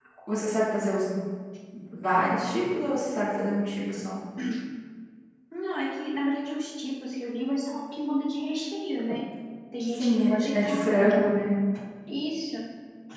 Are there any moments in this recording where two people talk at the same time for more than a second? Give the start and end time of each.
9.9-11.2

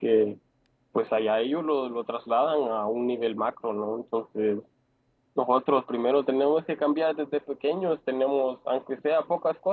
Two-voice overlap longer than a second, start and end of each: none

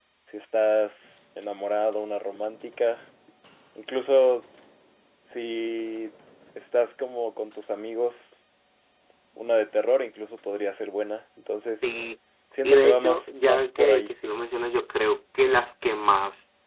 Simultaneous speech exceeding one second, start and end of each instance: 12.6-14.1

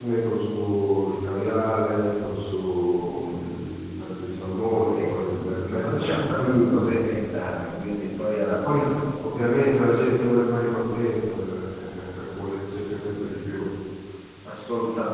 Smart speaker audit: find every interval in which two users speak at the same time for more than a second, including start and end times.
4.9-6.9

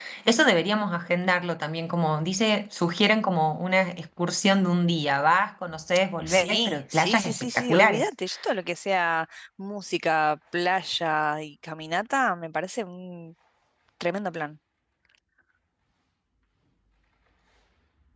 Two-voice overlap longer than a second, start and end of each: 6.3-8.1

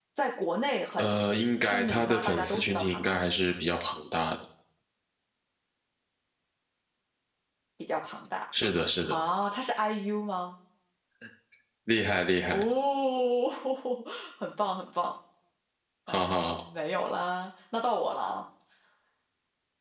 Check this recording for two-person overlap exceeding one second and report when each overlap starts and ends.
1.6-3.2

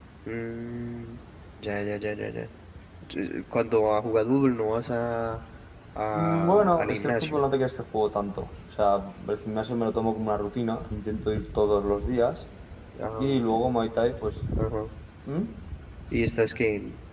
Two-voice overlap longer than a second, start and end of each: 6.1-7.4

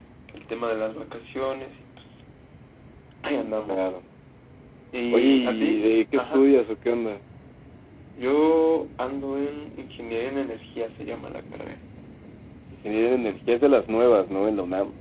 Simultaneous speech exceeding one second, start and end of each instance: 5.1-6.5

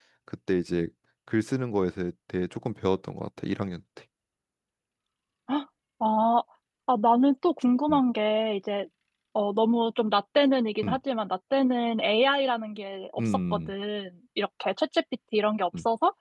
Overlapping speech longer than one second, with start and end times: none

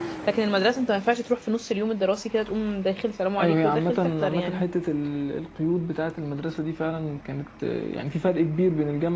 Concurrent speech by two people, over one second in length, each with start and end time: 3.4-4.6

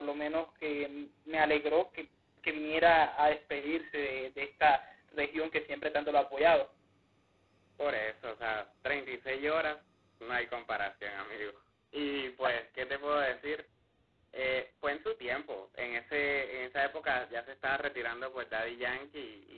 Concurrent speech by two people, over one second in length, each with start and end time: none

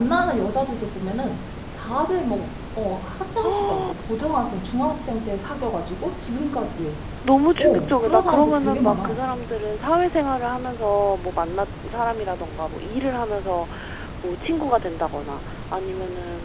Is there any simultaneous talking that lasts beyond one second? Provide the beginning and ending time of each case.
7.6-9.2

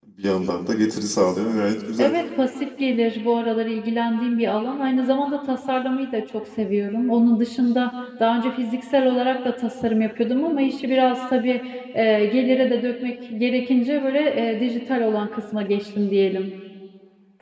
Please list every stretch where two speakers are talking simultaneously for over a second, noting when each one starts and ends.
none

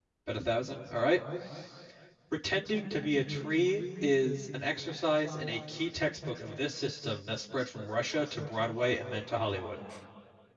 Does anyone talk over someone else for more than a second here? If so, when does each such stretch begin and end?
none

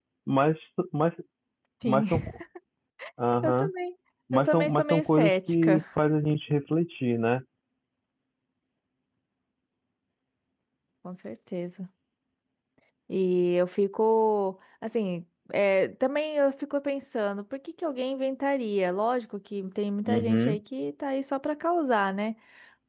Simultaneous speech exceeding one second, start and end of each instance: 4.3-5.8

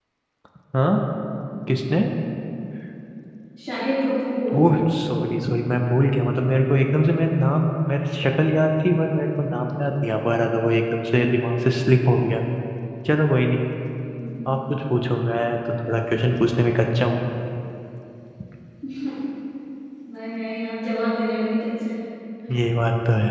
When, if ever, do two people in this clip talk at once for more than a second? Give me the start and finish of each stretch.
none

